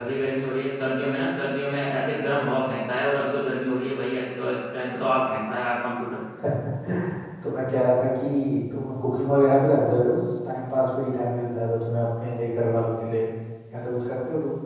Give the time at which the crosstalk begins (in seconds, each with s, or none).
none